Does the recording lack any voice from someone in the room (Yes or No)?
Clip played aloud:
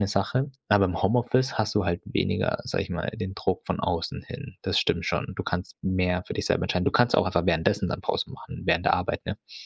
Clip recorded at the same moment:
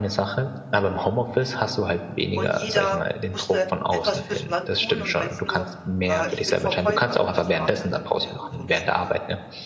No